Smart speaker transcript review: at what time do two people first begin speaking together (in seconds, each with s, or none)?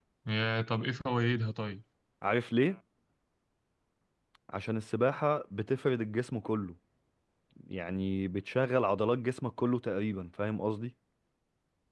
none